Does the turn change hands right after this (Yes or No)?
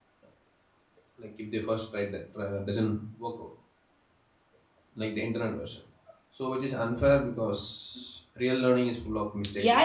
Yes